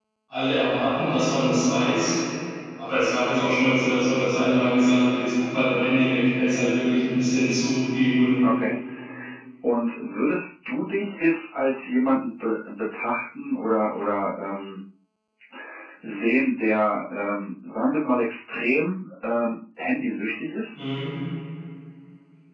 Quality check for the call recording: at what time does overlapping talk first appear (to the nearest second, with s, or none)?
none